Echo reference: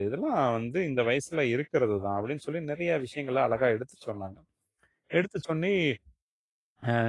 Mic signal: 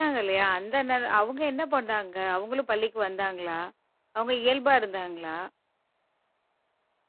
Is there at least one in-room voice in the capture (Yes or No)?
Yes